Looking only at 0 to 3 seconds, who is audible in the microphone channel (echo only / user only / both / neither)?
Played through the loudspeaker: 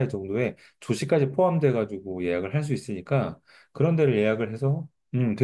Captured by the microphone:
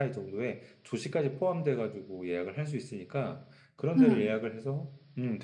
echo only